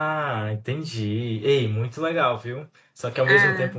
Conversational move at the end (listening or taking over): listening